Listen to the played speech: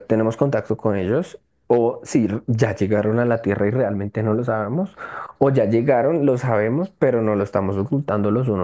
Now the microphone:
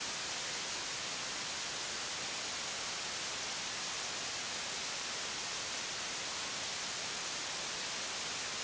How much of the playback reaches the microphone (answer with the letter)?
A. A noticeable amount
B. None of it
B